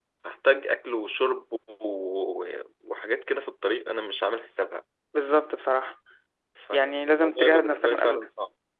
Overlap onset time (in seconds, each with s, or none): 6.7 s